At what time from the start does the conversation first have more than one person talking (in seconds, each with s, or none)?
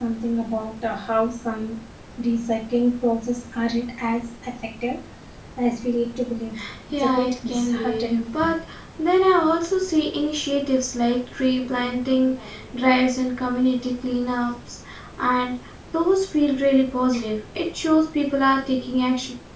7.0 s